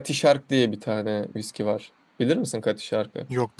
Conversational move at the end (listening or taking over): listening